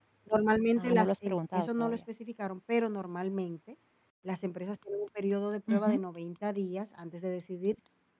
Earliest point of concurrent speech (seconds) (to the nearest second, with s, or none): 1 s